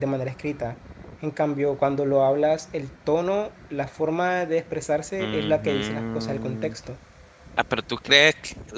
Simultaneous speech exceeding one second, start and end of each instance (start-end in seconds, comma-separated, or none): 5.2-6.8